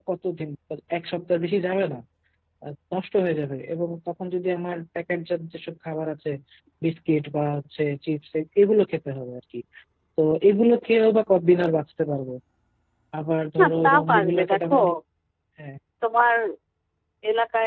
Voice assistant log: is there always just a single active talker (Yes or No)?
No